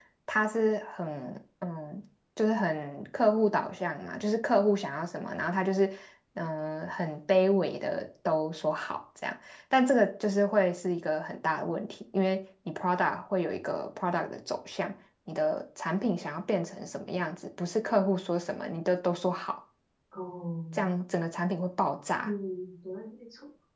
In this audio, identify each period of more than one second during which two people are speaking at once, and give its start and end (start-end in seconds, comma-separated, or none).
none